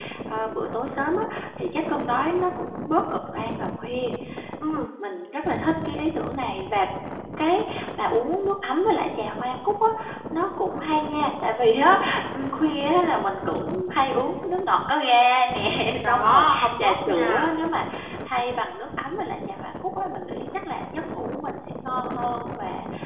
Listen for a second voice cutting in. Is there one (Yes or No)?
Yes